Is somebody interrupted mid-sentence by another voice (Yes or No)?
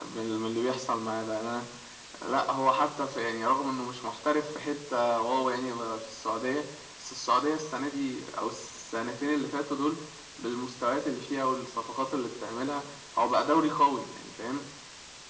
No